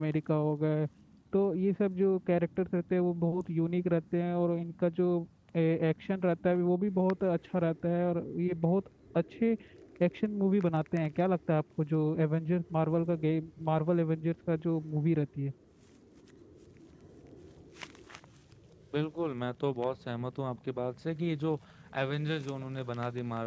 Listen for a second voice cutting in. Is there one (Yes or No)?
No